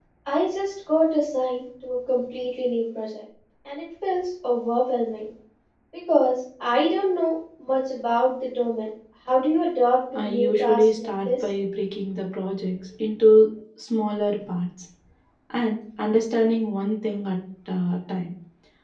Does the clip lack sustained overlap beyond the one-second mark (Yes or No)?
No